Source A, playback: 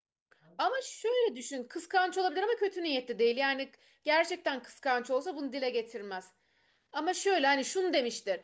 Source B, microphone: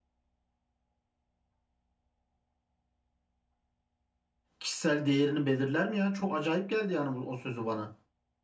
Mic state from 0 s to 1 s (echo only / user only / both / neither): neither